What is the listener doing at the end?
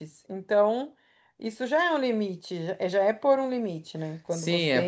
taking over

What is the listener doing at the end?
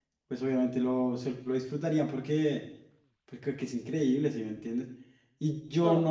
listening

